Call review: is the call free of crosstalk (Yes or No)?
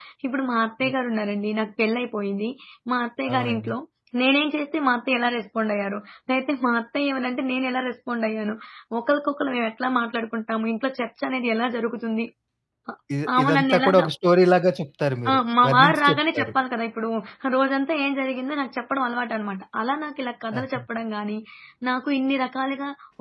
No